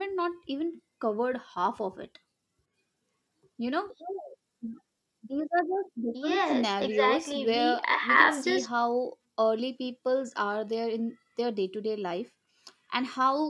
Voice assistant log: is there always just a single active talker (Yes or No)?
No